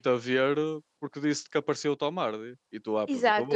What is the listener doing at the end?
taking over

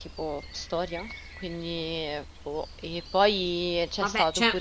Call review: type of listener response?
taking over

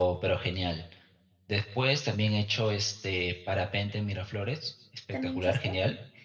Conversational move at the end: listening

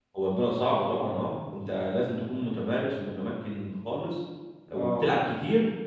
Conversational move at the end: listening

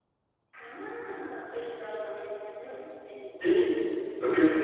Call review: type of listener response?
taking over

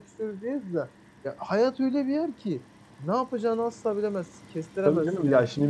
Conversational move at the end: taking over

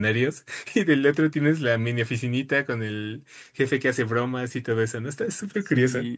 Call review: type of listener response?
taking over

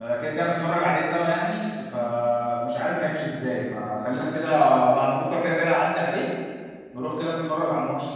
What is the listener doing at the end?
taking over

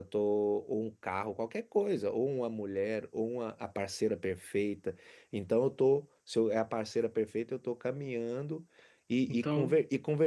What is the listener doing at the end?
listening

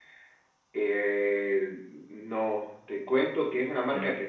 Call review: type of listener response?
listening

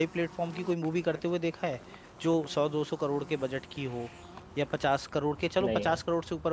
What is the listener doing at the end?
listening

